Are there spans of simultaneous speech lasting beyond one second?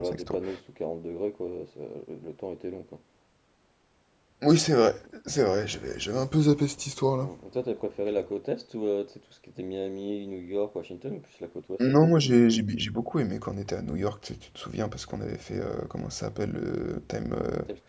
No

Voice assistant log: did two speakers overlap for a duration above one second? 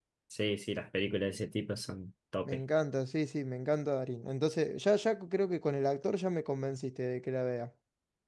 No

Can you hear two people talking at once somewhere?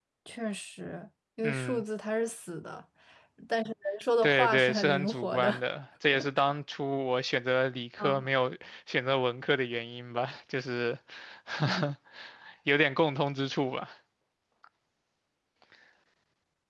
Yes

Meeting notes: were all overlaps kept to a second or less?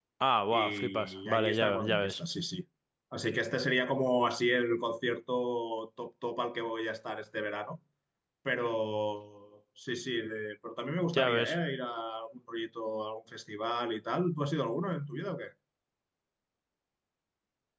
No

